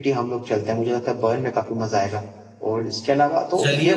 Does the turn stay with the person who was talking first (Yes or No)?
Yes